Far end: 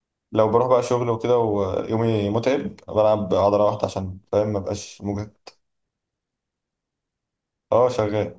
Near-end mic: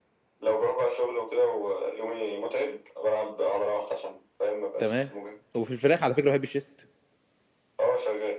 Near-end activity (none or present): present